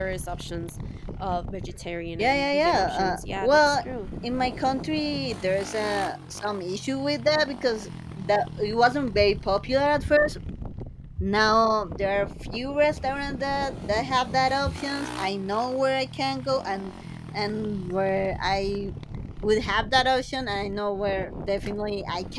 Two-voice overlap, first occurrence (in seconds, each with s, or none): 2.2 s